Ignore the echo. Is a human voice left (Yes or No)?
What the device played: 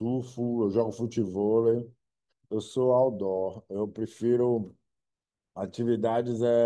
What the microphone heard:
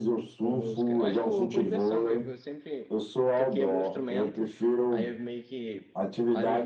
Yes